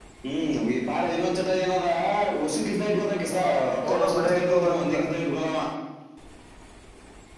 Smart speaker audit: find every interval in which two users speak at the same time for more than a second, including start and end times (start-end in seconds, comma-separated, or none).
3.2-5.0